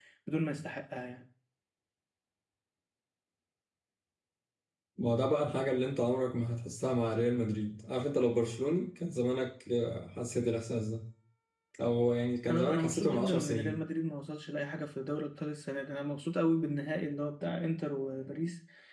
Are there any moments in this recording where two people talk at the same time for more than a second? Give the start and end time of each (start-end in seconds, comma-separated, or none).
12.5-13.8